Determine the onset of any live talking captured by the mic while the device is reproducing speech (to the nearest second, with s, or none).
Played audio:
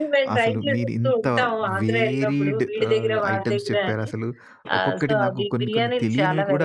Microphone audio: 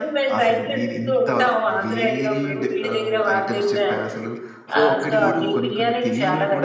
4 s